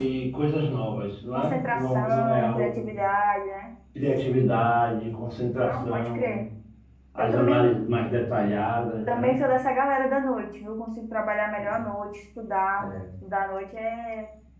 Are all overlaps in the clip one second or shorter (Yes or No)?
No